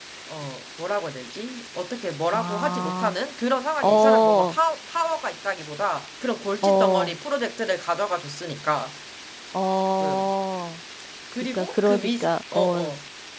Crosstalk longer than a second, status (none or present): present